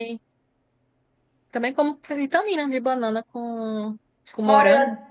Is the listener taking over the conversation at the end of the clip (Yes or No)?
Yes